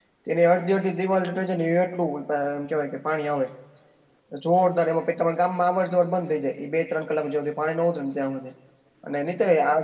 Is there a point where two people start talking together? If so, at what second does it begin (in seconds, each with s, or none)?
none